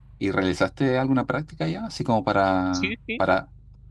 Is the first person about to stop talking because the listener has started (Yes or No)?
No